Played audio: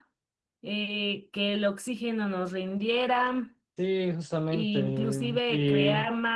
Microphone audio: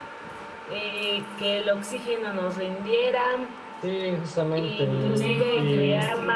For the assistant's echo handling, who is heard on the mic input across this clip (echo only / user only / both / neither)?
both